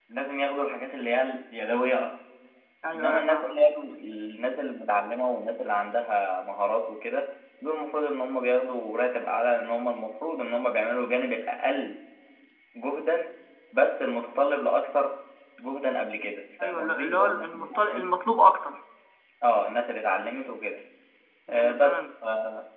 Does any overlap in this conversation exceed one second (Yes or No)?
Yes